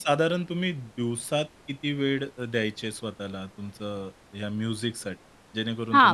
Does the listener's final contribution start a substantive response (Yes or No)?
Yes